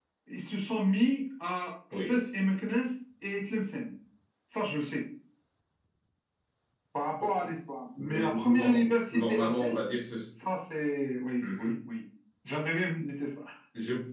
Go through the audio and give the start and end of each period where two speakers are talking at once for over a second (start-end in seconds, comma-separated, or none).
8.0-9.8